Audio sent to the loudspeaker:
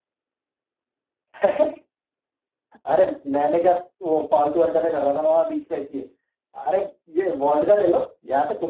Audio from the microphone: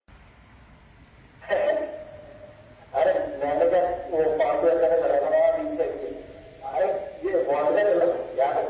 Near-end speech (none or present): none